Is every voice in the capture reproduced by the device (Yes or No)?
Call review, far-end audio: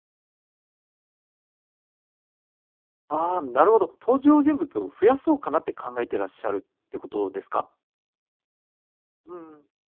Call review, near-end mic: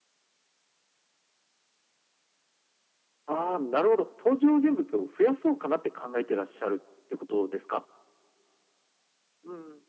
Yes